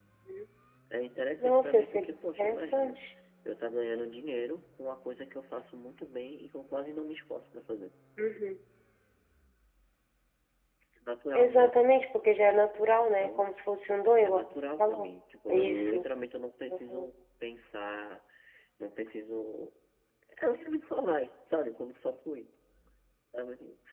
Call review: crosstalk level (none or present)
present